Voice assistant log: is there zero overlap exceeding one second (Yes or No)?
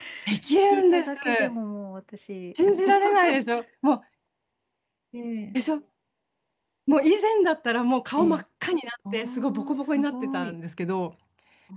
No